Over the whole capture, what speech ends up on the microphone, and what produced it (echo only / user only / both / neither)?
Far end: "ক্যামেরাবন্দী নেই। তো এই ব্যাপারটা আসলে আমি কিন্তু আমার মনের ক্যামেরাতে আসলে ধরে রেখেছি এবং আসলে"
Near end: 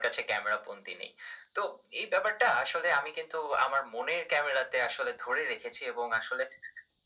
echo only